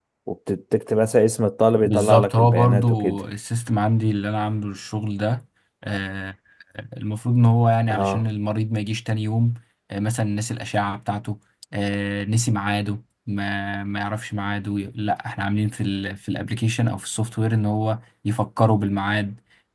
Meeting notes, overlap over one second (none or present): present